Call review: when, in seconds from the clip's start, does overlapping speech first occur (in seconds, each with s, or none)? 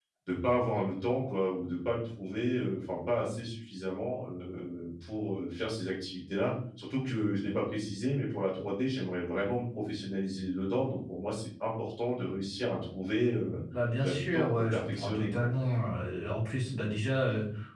14.0 s